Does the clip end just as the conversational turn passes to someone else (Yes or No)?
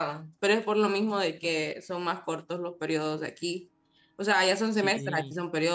No